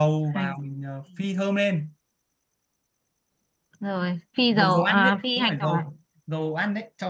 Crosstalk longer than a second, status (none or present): present